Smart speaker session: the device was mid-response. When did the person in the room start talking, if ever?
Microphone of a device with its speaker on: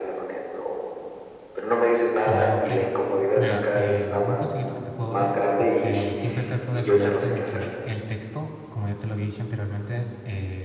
2.3 s

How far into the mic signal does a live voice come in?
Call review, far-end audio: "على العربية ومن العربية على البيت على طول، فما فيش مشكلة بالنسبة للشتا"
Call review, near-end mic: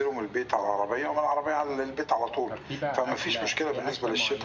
2.5 s

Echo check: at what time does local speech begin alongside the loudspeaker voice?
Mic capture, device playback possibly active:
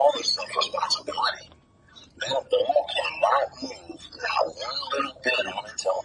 none

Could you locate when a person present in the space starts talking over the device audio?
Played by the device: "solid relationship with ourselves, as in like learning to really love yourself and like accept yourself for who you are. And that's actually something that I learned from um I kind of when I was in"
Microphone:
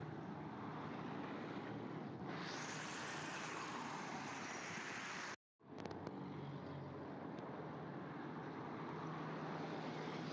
none

